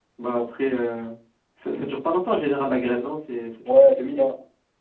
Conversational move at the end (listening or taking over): taking over